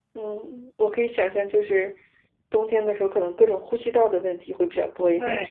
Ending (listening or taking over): taking over